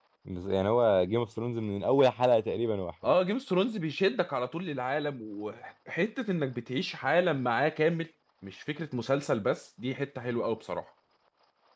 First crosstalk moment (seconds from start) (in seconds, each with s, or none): none